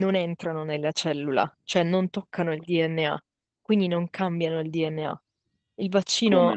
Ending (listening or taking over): taking over